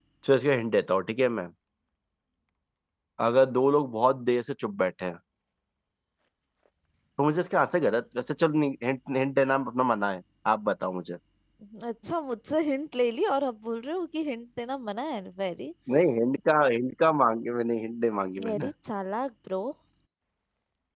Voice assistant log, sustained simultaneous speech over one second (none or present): none